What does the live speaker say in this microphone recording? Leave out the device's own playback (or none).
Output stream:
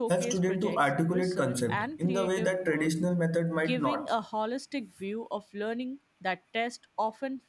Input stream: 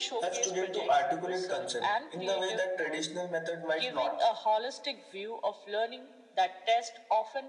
none